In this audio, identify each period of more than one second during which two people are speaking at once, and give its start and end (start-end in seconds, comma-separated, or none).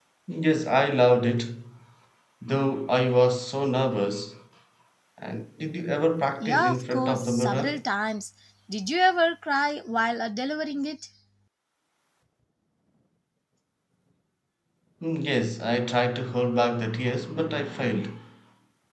6.4-7.8